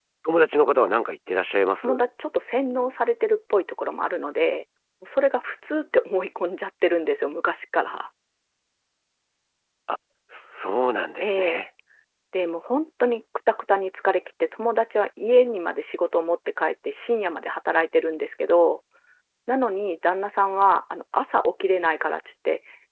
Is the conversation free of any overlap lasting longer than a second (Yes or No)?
Yes